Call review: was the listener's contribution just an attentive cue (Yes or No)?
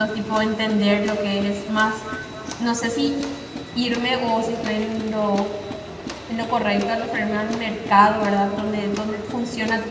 Yes